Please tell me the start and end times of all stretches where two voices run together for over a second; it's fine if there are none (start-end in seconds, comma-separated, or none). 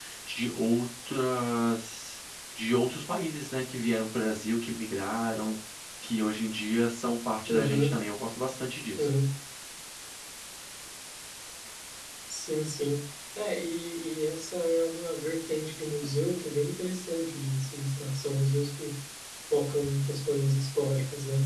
none